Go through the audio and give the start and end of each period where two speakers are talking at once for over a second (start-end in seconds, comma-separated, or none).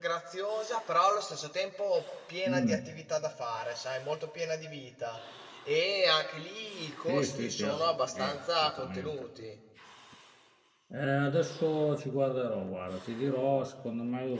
7.1-9.2